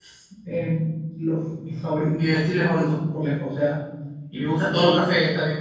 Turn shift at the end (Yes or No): No